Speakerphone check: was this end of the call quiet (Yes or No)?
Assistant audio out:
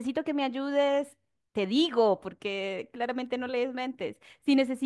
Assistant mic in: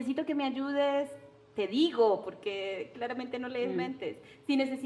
No